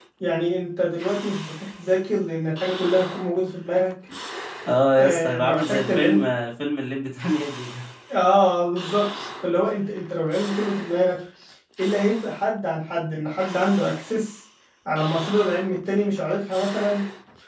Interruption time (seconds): 5 s

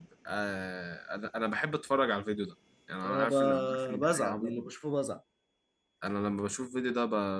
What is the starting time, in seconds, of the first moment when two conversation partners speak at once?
3 s

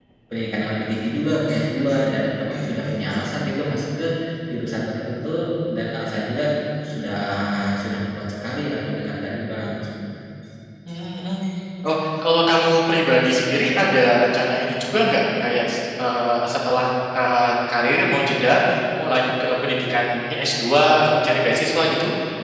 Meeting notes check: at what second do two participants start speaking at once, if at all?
none

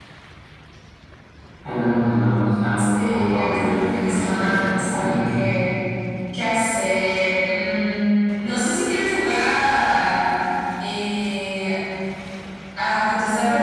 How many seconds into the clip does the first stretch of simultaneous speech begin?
3 s

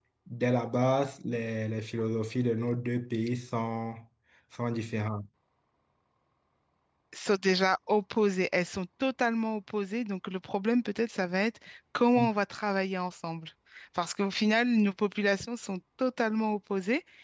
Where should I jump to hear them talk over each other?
none

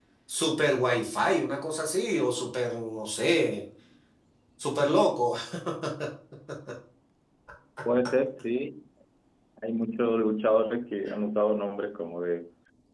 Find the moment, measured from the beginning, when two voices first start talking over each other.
none

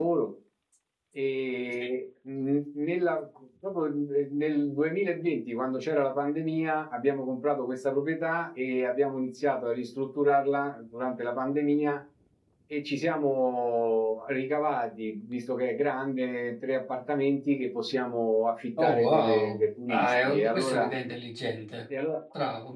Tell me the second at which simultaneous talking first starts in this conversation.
19 s

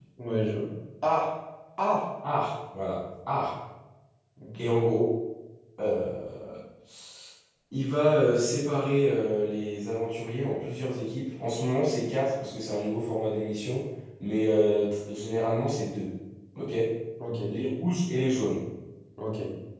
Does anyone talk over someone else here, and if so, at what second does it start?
none

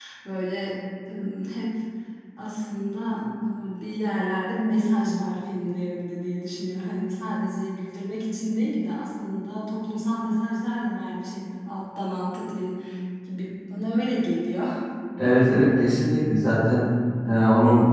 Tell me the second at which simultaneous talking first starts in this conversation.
none

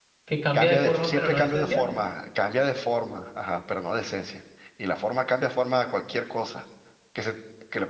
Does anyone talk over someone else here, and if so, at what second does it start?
1 s

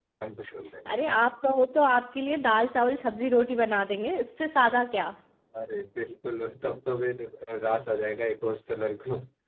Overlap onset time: none

